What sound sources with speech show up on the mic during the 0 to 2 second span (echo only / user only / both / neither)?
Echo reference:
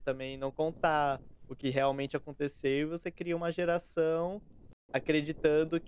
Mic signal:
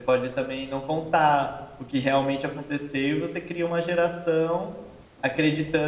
echo only